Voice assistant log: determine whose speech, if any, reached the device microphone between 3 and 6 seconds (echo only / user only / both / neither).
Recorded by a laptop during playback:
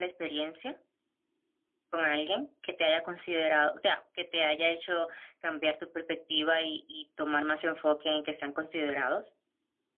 user only